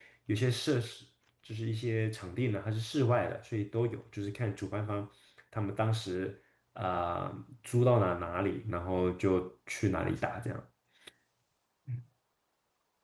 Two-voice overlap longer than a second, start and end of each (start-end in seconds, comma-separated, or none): none